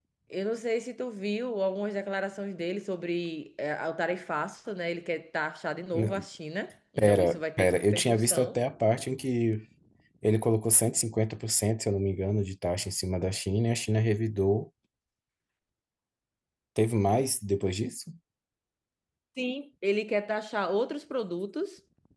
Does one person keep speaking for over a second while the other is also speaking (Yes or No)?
Yes